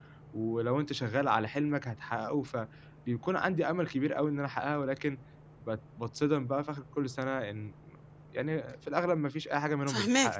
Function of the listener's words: taking over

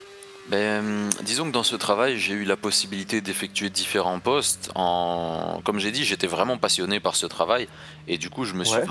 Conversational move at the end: listening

